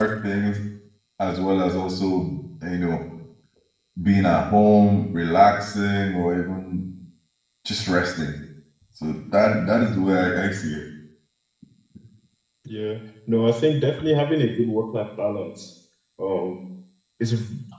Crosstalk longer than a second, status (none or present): none